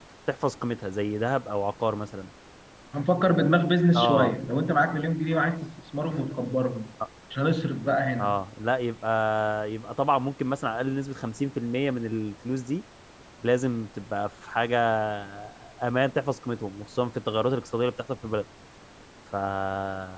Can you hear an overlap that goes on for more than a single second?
No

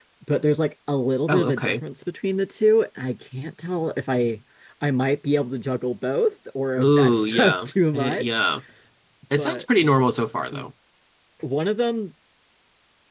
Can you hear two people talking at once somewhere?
Yes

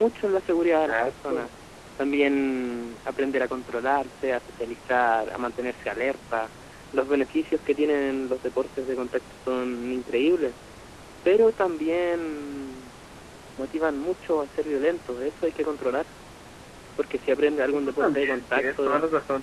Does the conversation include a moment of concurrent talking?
Yes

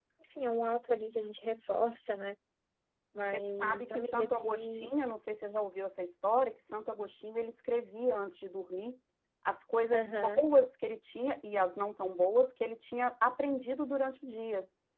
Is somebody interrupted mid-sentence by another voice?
Yes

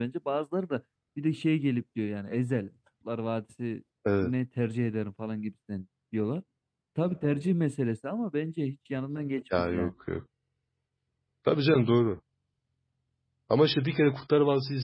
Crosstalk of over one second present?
No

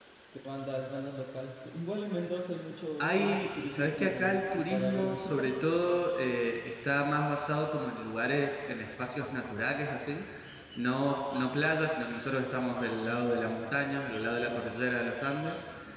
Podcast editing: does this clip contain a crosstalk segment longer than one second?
Yes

